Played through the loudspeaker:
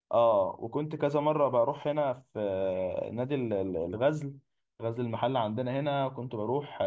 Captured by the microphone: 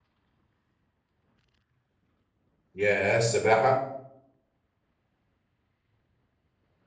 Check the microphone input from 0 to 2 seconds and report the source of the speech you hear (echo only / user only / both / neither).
neither